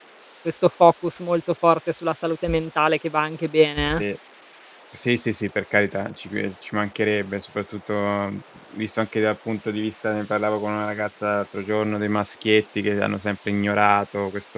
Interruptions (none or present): none